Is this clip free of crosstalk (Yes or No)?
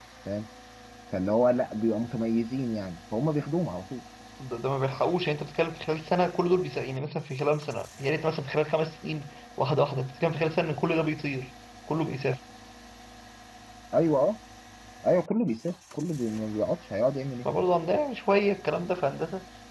Yes